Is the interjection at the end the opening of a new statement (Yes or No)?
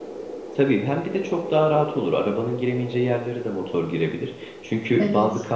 No